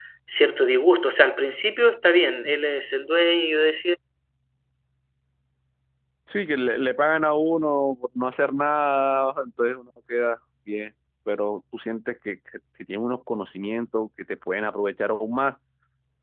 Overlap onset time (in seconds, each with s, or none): none